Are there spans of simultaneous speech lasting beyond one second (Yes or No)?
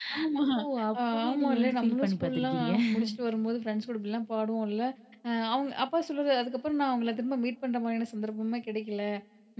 Yes